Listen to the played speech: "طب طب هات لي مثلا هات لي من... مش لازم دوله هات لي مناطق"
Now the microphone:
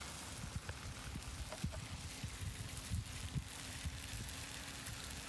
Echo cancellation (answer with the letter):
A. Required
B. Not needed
B